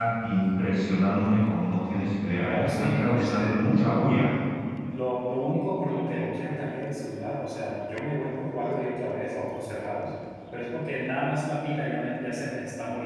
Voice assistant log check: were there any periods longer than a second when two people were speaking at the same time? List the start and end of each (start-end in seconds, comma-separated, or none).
2.4-3.6